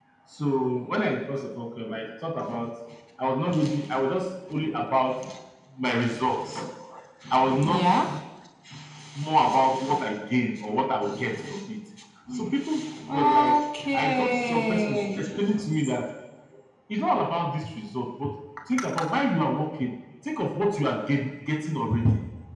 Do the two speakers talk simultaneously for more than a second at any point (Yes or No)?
Yes